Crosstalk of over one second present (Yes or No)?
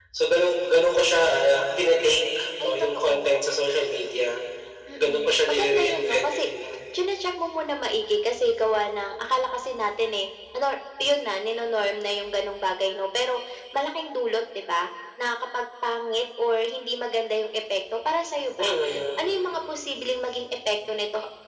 Yes